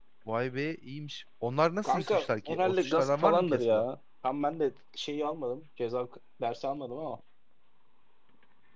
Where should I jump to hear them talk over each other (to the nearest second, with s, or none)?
2 s